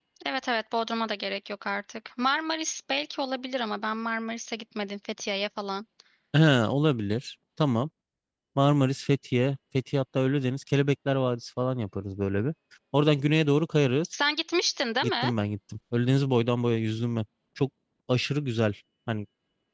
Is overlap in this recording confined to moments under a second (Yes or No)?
Yes